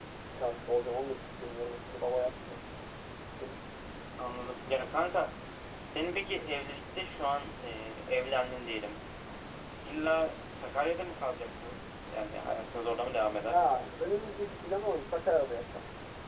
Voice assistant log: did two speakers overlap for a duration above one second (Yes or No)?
No